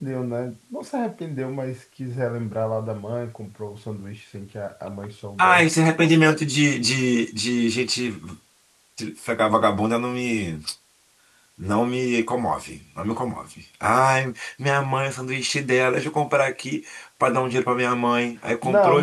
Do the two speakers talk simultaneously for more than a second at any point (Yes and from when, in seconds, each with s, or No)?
No